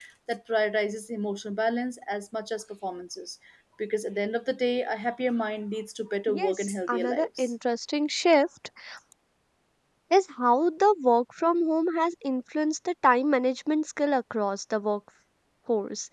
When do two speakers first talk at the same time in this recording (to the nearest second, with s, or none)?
6 s